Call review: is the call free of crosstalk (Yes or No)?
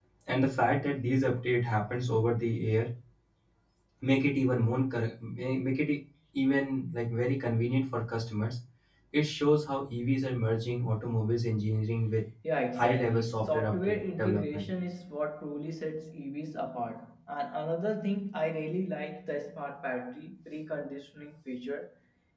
No